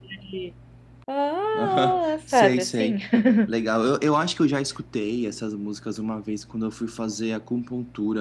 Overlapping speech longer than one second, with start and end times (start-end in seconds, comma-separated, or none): 1.5-3.0